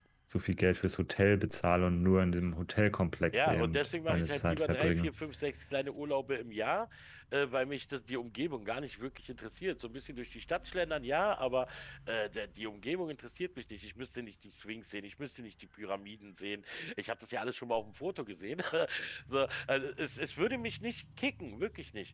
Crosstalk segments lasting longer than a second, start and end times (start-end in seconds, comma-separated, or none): 3.4-5.1